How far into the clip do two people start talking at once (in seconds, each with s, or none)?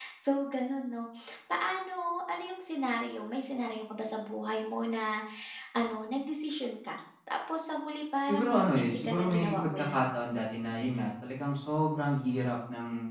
8.3 s